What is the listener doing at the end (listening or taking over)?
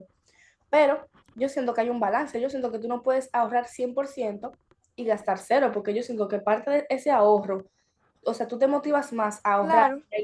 listening